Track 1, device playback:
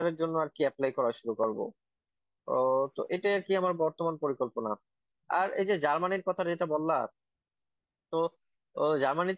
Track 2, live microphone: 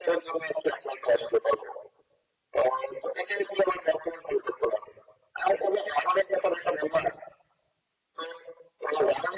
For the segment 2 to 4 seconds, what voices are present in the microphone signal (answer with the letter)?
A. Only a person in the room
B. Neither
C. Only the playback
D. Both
C